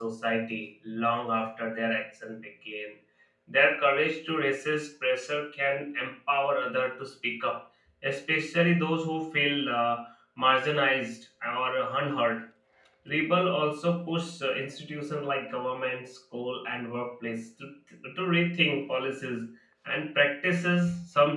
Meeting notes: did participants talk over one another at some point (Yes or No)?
No